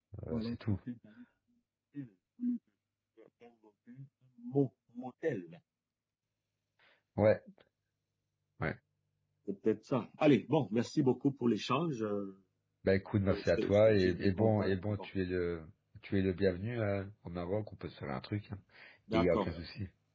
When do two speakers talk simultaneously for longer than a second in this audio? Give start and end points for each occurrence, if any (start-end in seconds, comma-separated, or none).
13.3-15.0